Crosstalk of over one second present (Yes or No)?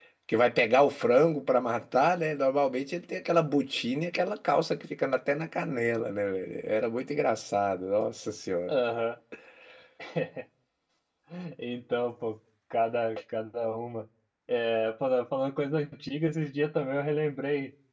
No